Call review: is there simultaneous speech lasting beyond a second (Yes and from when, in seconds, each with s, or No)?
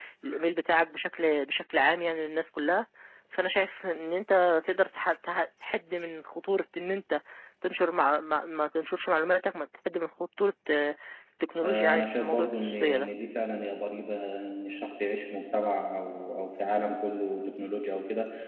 Yes, from 11.6 s